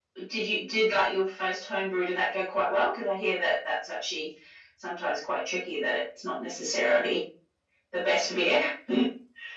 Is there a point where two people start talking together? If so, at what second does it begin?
none

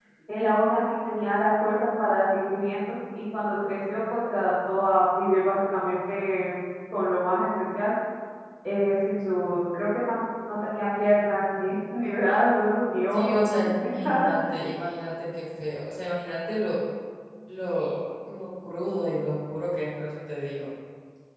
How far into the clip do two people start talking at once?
13.1 s

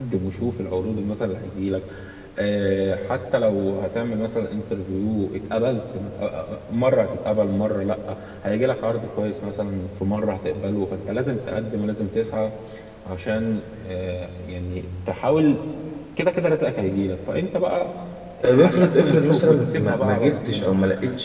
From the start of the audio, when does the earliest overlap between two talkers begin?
18.5 s

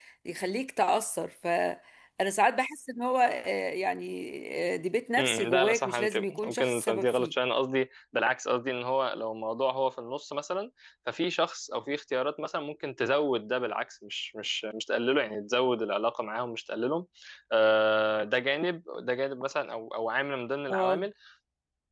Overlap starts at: 5.2 s

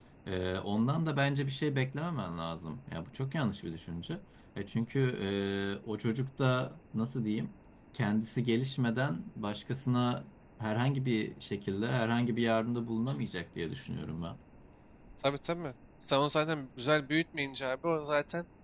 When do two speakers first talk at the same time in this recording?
none

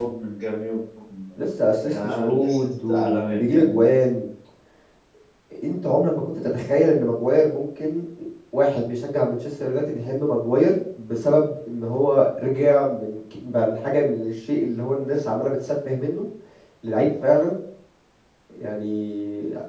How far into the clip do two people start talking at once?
1.9 s

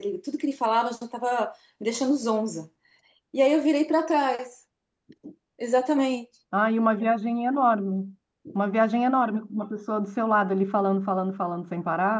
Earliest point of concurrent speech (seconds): none

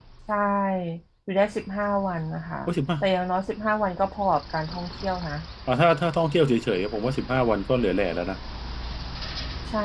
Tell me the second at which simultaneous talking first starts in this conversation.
none

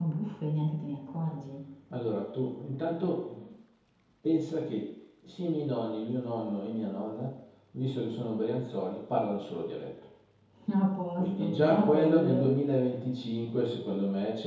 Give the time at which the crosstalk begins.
11.2 s

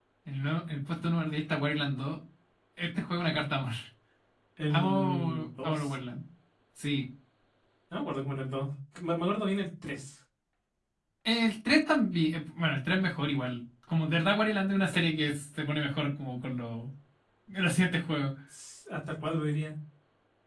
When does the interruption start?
4.7 s

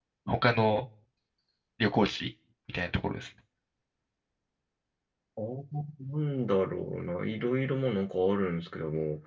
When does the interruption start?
none

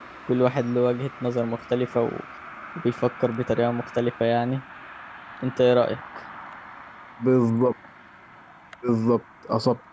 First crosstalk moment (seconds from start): none

